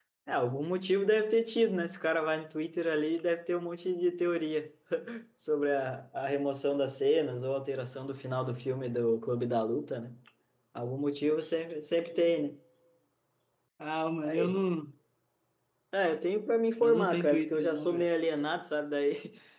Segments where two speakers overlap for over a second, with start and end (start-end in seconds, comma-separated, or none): 16.8-18.1